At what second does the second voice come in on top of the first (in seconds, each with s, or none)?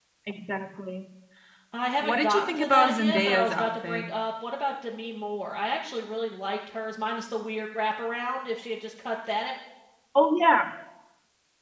2.0 s